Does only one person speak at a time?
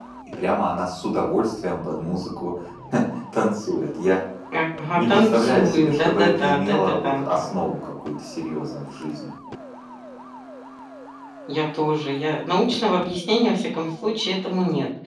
No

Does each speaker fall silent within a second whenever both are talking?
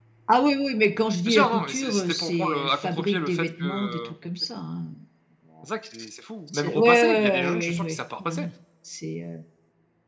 No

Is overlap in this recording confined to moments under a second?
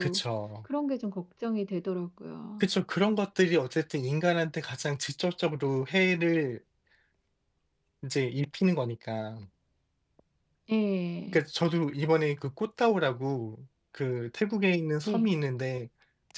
Yes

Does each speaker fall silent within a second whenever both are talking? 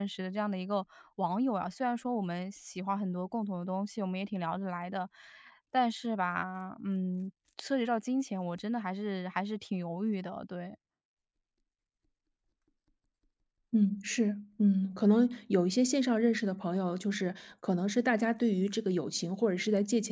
Yes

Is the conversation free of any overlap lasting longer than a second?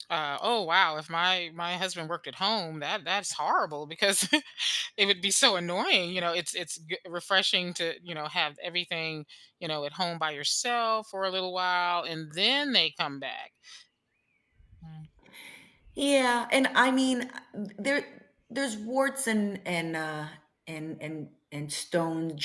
Yes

